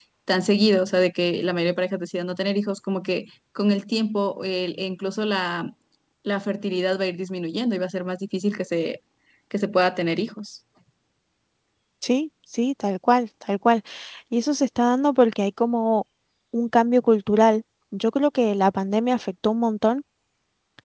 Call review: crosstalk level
none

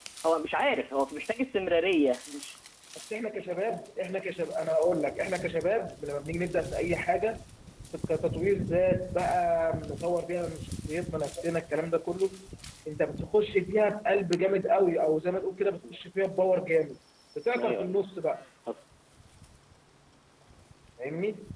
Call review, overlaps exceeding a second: none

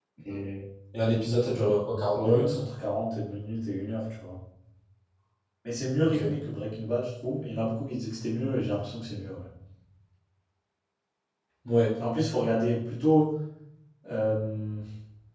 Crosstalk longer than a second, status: none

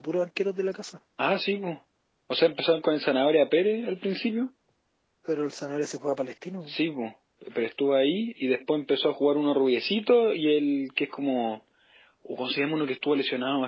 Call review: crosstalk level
none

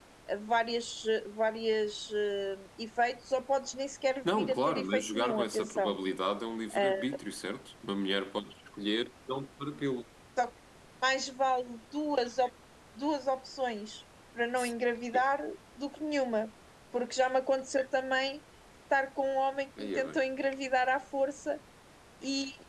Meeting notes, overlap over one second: present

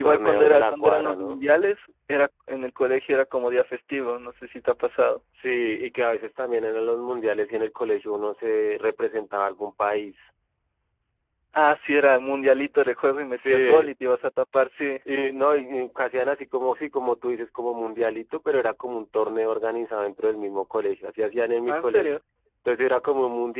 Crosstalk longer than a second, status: present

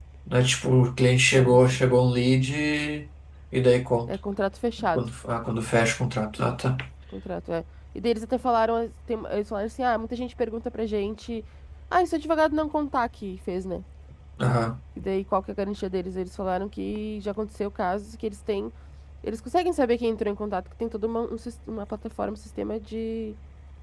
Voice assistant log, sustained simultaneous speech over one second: none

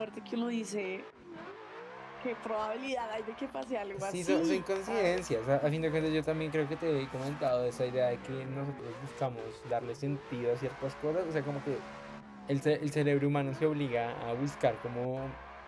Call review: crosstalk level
present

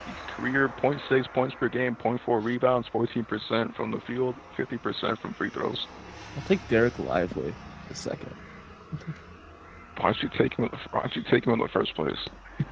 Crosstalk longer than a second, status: none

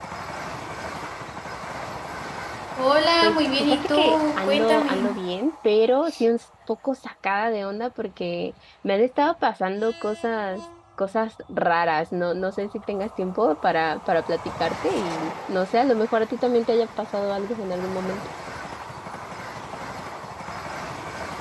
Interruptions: present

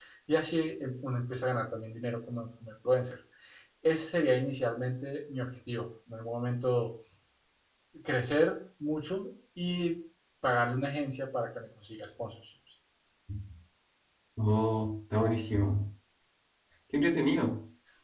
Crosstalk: none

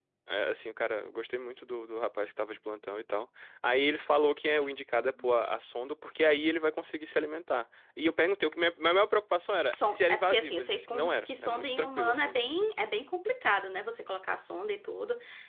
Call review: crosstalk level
present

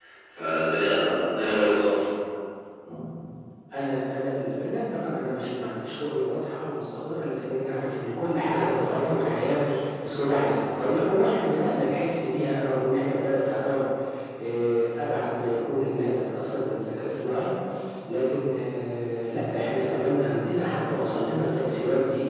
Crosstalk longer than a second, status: none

